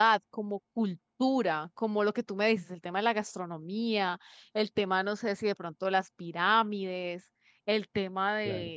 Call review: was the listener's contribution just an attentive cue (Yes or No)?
Yes